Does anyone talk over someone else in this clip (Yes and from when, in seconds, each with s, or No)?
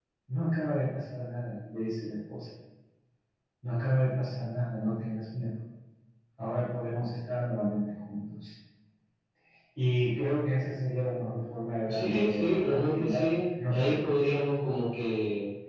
Yes, from 11.9 s